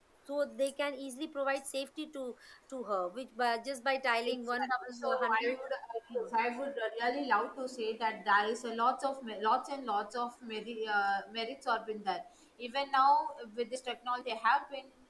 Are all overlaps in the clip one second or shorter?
No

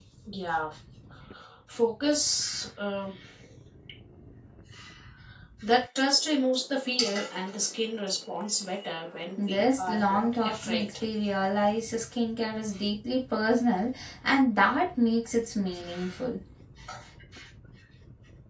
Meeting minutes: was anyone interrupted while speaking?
Yes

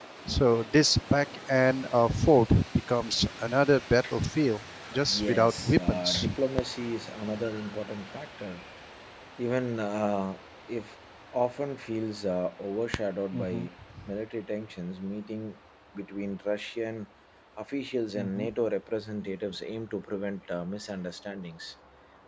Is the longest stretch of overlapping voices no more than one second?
No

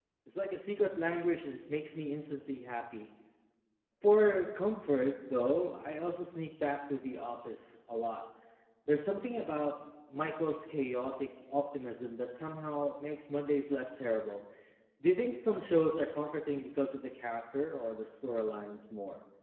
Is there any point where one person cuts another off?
No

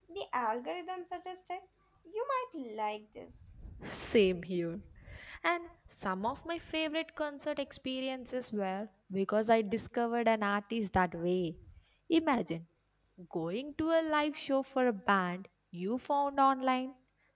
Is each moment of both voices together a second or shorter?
Yes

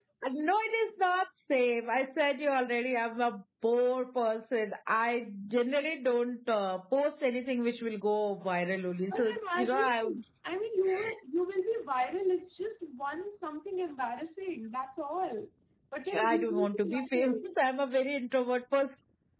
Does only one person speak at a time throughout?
No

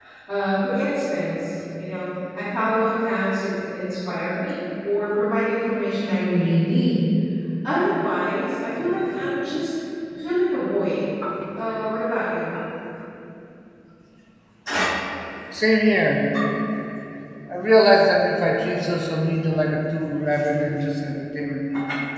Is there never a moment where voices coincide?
Yes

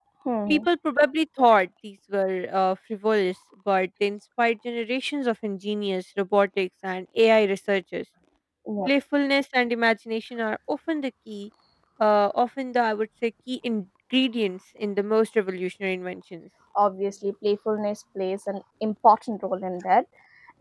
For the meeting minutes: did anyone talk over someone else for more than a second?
No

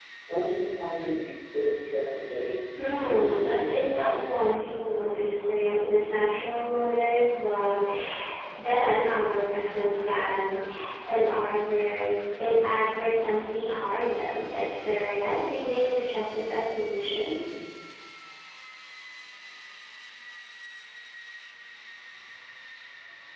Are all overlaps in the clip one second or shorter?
No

